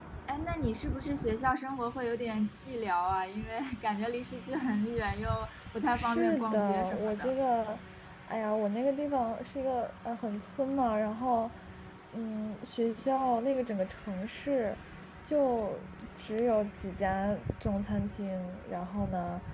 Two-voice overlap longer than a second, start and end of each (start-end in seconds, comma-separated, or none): 5.9-7.3